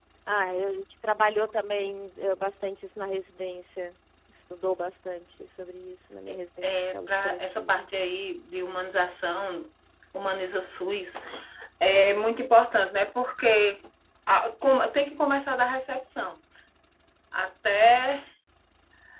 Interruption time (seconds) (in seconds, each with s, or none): 6.6 s